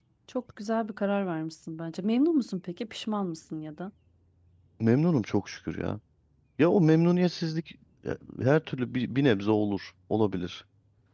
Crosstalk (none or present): none